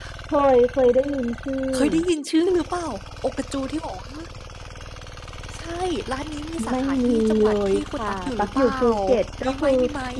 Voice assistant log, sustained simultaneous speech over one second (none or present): present